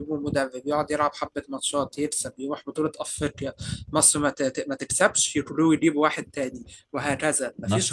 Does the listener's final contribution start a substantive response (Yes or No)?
No